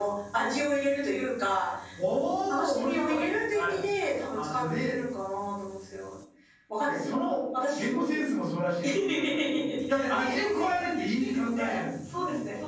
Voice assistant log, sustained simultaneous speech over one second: present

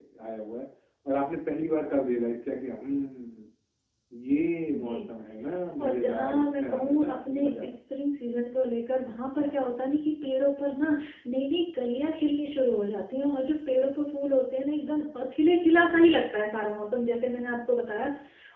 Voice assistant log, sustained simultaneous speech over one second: present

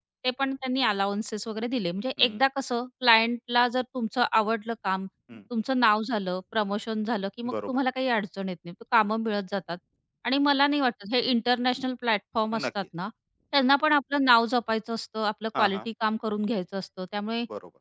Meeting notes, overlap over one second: none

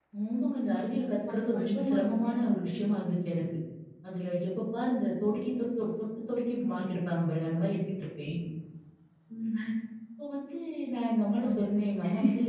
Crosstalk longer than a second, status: present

